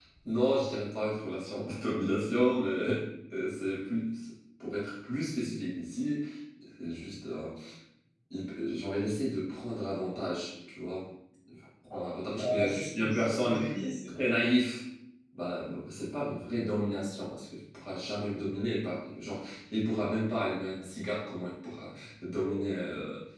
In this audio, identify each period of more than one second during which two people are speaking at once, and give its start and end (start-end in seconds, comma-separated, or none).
12.4-13.6